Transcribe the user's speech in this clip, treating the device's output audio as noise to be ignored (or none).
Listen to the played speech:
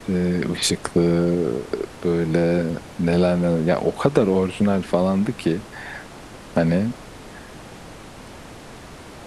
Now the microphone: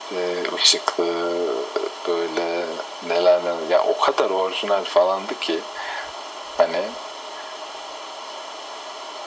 none